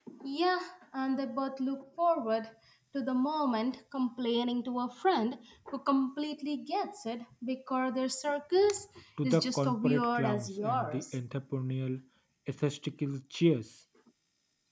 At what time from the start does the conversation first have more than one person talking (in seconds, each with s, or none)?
9.2 s